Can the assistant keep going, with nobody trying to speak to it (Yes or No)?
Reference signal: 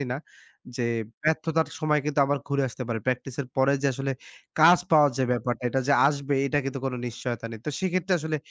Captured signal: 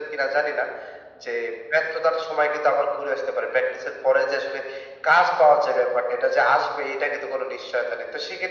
Yes